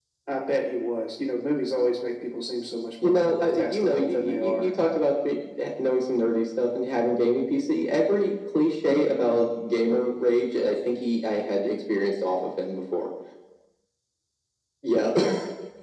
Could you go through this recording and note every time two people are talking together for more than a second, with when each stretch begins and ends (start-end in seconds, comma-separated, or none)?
3.0-4.7